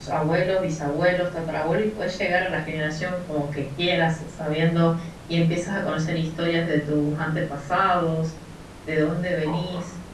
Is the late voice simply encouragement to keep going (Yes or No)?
Yes